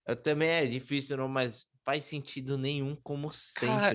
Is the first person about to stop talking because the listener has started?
Yes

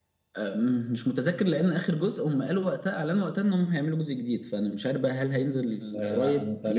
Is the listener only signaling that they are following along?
No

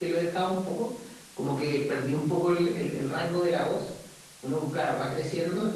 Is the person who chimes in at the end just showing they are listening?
Yes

